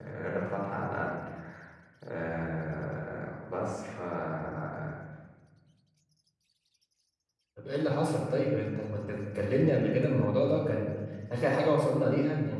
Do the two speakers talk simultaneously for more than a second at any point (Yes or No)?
No